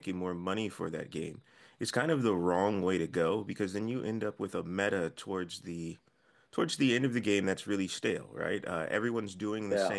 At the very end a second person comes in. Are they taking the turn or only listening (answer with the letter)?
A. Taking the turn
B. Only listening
B